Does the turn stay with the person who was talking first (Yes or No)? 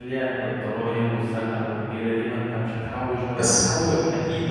Yes